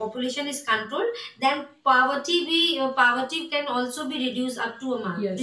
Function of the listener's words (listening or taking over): taking over